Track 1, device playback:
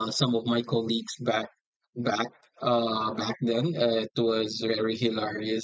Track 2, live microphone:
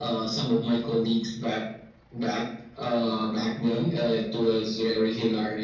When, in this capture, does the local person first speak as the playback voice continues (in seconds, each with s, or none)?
none